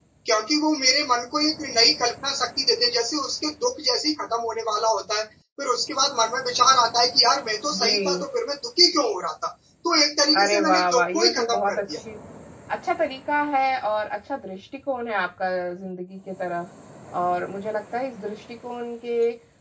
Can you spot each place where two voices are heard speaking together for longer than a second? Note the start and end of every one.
10.3-12.0

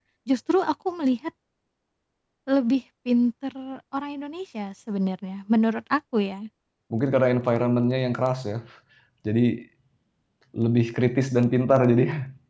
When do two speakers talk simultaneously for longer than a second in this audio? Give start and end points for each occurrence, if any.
none

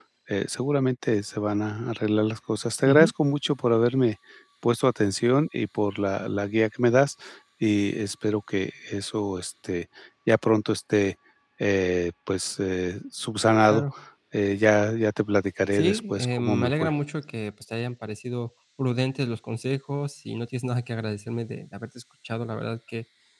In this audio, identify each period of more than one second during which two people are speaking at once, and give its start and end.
15.7-17.0

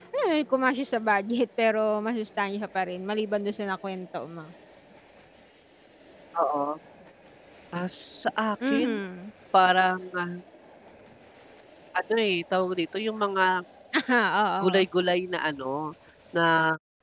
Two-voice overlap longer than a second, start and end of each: none

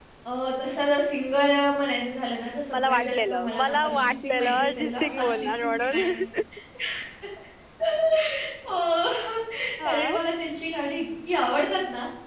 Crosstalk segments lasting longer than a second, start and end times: 2.7-6.0

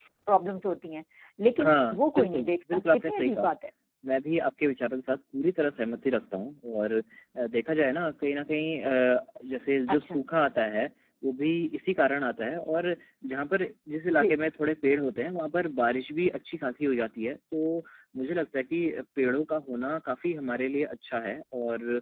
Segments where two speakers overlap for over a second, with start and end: 1.6-3.5

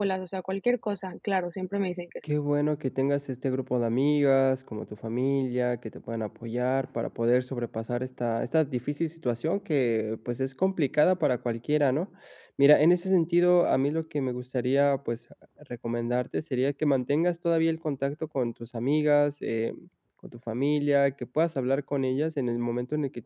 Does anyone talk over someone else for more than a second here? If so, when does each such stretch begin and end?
none

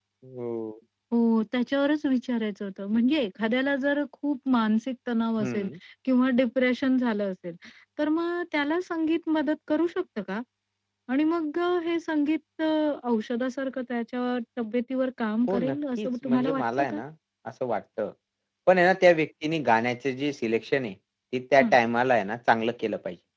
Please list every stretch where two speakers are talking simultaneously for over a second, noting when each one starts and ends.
15.5-17.0

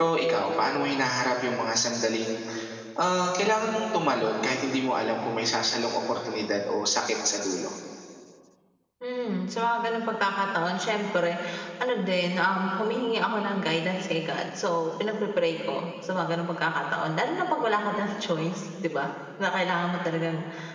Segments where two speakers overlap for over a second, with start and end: none

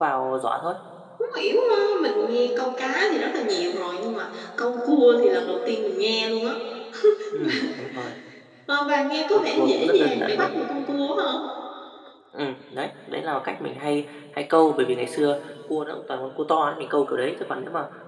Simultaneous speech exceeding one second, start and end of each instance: 9.4-10.6

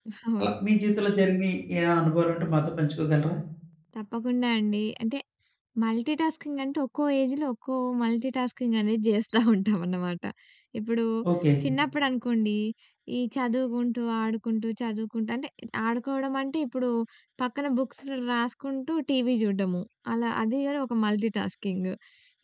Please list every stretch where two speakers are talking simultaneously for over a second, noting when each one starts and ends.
none

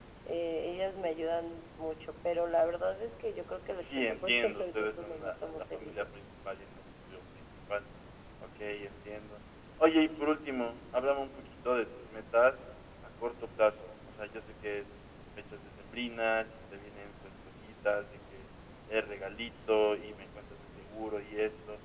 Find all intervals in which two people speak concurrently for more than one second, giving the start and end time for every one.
3.8-6.0

